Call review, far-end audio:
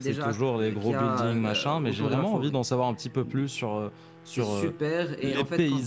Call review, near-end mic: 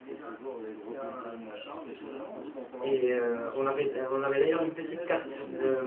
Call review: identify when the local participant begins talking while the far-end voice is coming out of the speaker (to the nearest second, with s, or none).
3 s